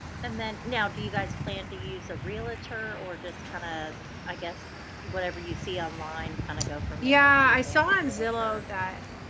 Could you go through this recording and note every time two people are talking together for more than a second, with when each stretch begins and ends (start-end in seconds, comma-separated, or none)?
7.0-8.6